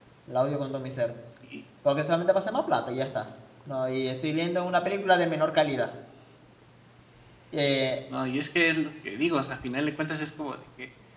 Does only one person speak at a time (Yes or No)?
Yes